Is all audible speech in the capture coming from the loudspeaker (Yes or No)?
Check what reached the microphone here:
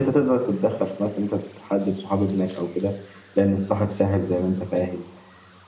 Yes